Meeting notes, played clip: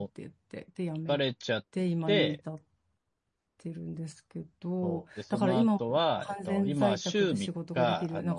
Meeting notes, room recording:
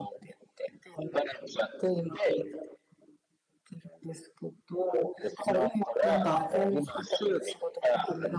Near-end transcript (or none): なんか、